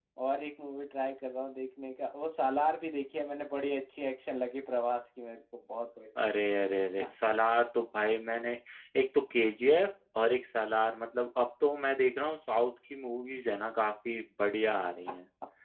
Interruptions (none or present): none